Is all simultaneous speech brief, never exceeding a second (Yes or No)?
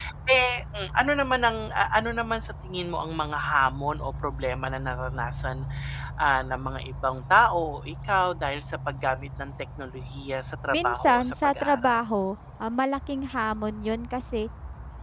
No